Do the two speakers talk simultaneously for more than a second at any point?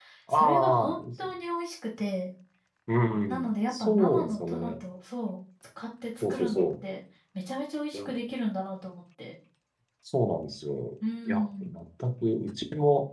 Yes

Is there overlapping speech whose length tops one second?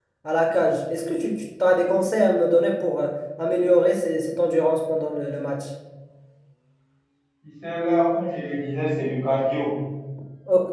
No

